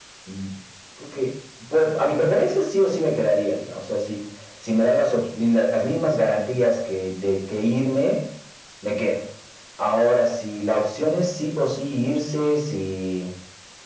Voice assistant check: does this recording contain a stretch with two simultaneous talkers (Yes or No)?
No